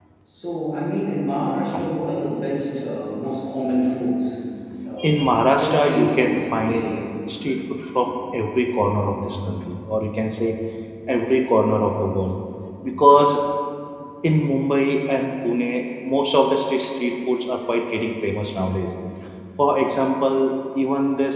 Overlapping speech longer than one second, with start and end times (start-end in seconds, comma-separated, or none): 5.5-6.8